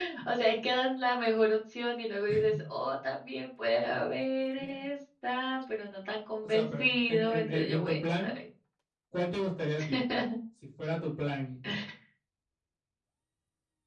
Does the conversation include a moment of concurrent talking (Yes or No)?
Yes